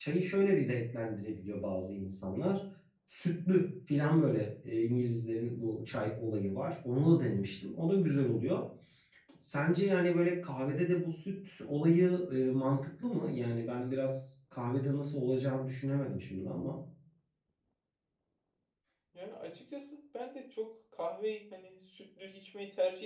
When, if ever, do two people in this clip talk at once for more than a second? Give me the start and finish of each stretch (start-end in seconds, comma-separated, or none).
none